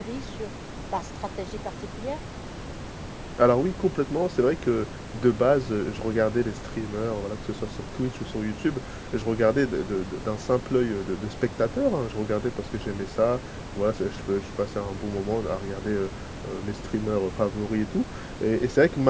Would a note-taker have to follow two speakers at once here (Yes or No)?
No